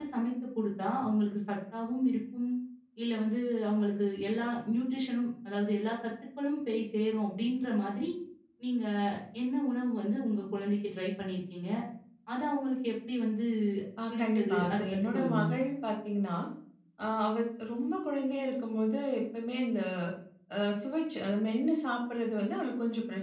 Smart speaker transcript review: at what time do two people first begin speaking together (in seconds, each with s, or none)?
14.1 s